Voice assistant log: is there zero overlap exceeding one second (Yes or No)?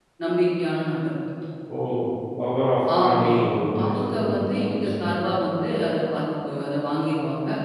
No